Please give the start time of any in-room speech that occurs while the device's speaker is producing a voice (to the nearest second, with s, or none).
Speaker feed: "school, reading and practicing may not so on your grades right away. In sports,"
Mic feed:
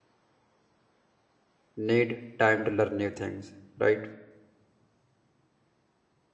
2 s